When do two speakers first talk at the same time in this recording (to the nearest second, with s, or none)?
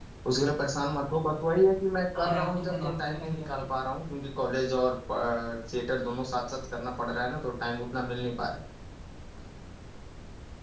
2 s